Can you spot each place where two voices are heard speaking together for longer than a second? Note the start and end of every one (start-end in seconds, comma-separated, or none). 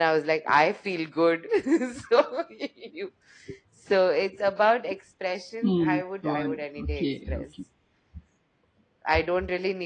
5.6-7.5